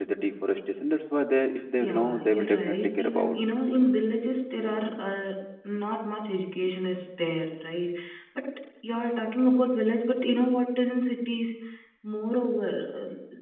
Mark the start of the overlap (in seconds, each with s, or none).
1.8 s